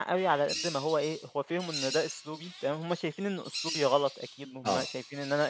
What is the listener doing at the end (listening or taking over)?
listening